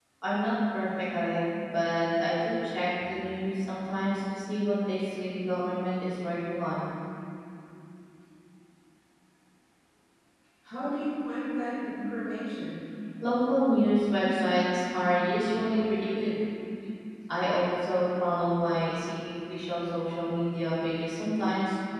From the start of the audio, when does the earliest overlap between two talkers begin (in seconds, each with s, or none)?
none